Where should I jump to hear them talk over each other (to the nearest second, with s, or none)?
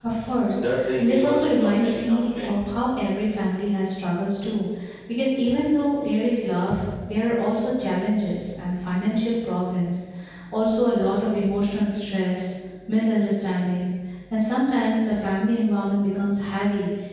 1 s